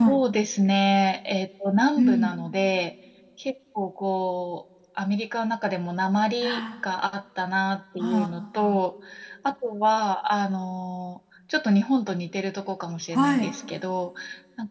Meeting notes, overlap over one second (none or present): none